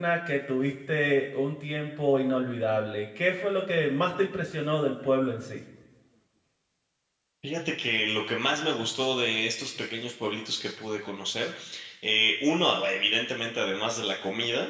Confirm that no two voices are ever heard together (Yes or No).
Yes